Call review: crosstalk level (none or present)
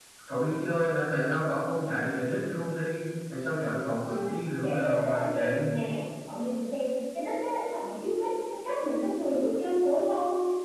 present